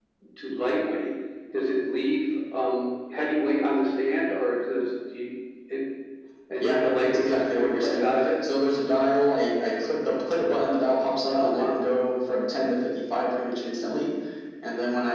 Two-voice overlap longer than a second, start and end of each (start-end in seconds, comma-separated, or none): 6.6-8.3